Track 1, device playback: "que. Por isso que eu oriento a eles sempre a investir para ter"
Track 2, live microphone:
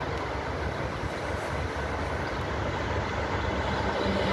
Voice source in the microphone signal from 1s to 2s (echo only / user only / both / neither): neither